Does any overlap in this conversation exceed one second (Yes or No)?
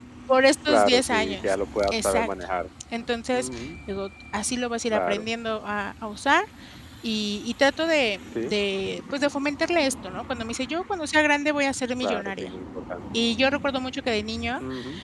Yes